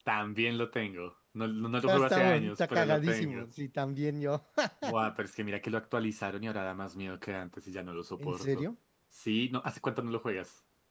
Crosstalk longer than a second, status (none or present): present